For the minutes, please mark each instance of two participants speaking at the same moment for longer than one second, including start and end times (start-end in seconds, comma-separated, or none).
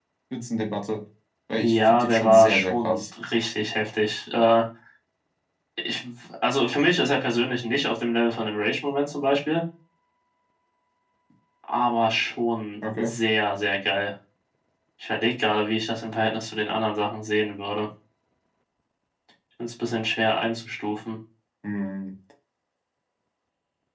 1.5-3.0